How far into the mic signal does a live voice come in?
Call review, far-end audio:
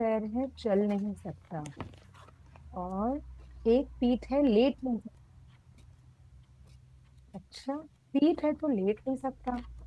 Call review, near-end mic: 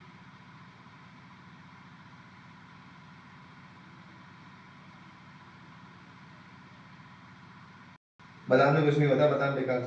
8 s

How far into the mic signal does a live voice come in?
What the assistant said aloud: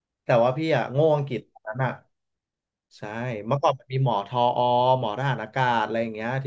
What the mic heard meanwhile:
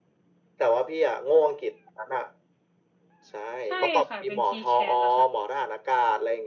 4 s

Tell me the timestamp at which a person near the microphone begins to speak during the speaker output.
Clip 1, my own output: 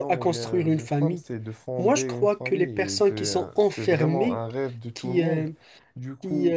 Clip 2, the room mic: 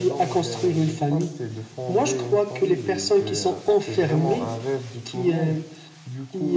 none

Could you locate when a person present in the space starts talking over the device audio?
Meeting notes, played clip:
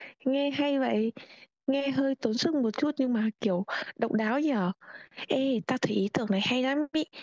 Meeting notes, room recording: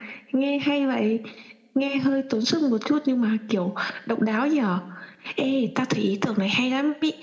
none

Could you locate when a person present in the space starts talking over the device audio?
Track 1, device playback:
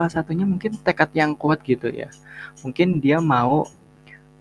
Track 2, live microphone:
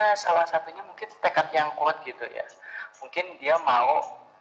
none

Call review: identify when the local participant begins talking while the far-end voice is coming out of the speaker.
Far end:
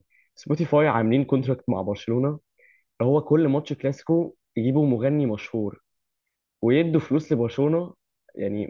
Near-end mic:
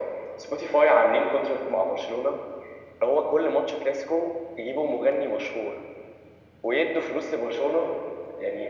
none

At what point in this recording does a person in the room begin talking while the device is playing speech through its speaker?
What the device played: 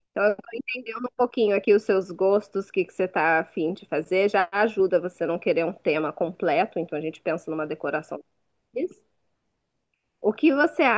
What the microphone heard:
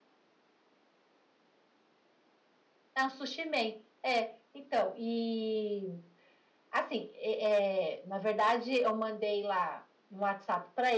3 s

